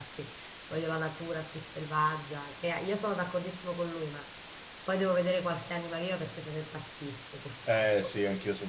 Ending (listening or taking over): taking over